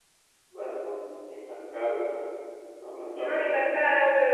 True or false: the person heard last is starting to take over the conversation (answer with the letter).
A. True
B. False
A